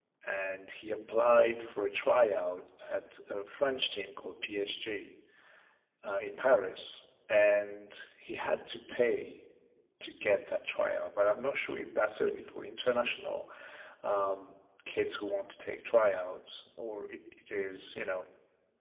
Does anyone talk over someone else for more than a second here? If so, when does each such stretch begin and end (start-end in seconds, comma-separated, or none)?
none